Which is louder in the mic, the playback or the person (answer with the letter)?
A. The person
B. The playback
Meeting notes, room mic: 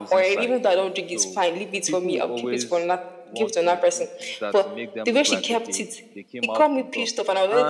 B